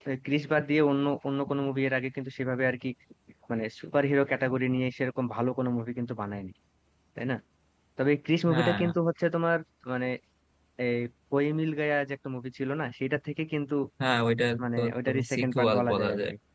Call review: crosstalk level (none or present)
present